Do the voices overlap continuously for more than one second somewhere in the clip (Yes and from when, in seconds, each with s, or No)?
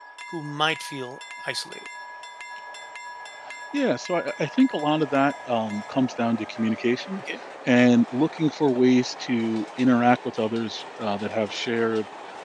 No